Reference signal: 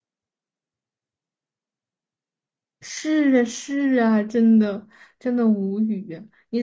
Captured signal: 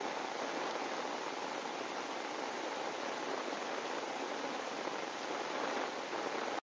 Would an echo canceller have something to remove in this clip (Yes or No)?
No